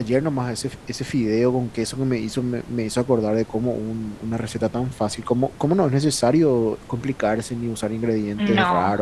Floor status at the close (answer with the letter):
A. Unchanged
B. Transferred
A